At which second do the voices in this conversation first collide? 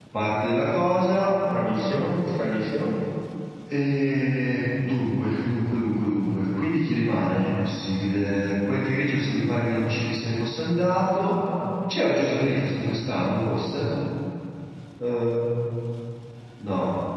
none

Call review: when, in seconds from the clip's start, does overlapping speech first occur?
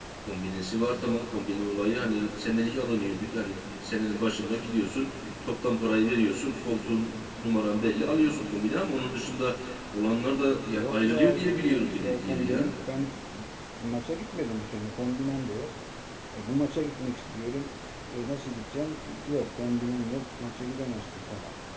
10.7 s

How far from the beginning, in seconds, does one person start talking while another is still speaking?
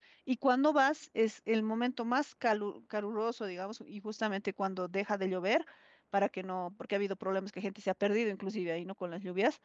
none

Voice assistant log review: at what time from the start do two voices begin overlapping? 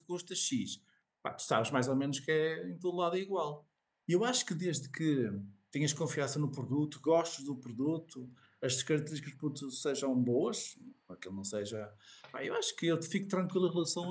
none

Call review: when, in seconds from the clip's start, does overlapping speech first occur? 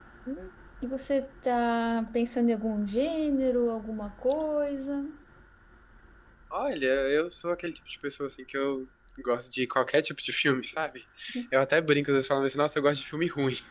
none

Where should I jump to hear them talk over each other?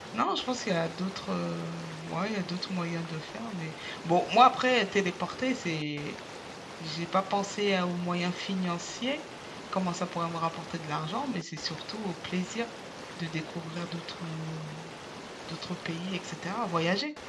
none

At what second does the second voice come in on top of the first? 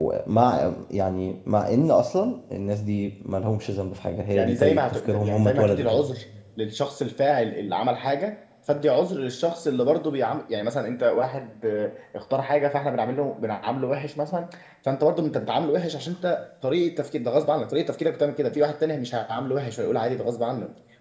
4.4 s

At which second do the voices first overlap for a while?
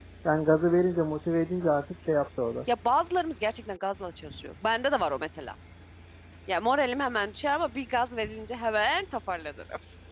none

